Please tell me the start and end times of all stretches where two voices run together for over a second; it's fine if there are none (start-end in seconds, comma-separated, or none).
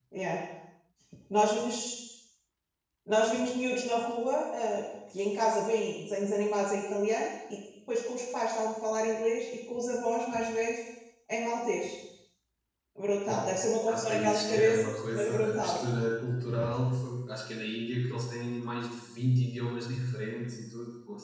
13.9-15.8